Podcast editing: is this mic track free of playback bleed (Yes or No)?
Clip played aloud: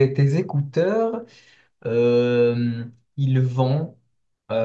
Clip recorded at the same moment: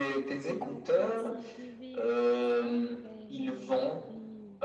No